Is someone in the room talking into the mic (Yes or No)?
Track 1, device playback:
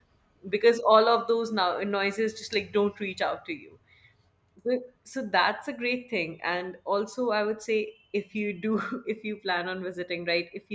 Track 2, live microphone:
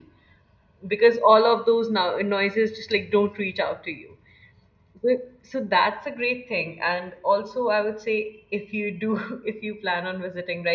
No